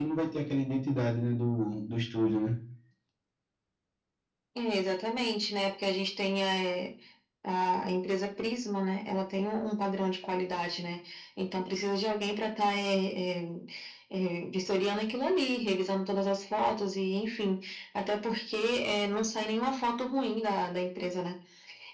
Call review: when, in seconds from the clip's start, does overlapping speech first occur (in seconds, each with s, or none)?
none